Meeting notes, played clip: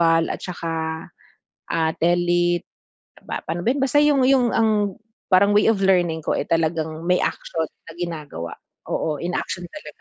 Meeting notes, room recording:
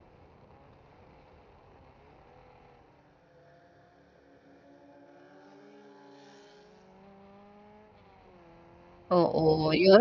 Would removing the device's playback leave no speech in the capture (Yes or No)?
No